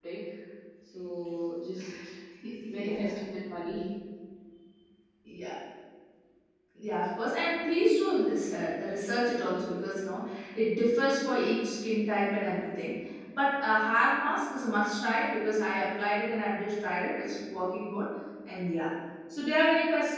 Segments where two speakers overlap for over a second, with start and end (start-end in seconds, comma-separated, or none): none